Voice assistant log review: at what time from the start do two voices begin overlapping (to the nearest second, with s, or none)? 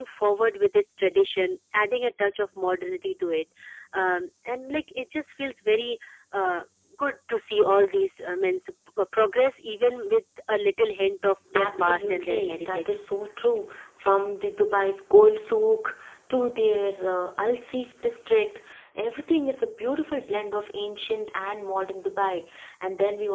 12 s